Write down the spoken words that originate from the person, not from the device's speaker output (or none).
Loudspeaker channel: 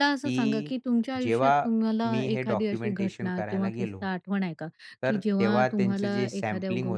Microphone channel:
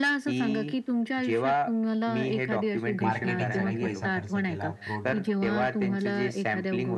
मार्केटिंगसाठी पैसा खर्च केला. प्रोडक्ट